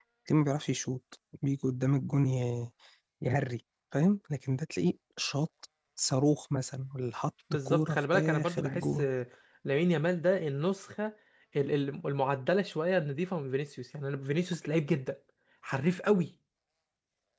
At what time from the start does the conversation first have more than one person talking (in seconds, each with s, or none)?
7.5 s